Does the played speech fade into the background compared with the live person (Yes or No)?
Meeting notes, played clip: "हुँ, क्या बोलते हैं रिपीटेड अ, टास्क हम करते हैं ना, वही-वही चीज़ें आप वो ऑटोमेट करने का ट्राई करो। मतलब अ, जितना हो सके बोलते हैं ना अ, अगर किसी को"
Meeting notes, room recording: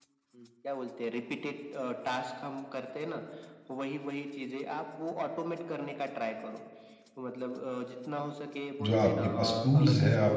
Yes